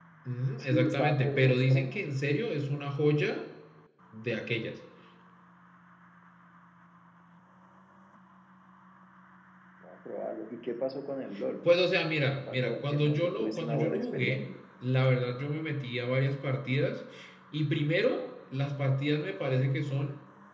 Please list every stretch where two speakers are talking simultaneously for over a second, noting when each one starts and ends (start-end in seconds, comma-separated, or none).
0.6-2.0, 12.5-14.5